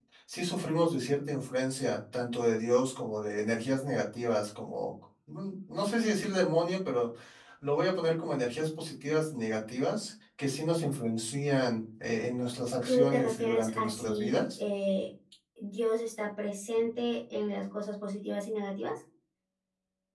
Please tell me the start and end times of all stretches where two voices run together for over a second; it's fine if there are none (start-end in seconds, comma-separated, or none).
12.8-14.4